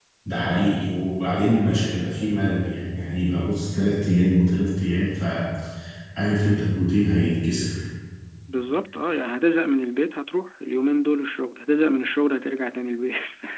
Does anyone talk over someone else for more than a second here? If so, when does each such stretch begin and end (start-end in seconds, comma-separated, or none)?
none